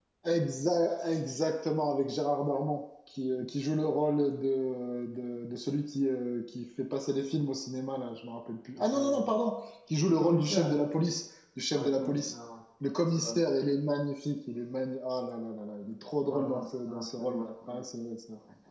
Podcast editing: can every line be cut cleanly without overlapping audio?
No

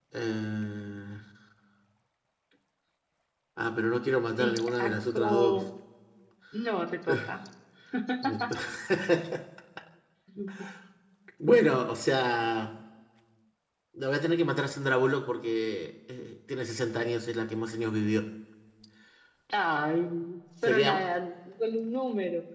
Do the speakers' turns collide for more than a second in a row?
Yes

